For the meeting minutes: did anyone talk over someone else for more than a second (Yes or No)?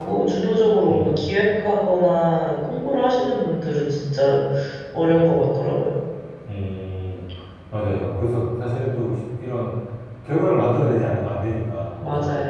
No